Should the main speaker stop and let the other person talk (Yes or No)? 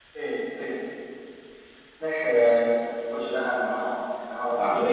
No